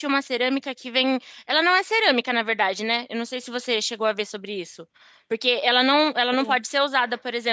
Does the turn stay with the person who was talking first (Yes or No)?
Yes